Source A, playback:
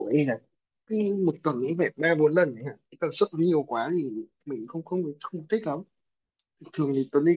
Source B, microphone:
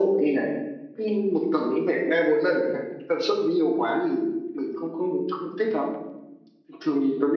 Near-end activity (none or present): none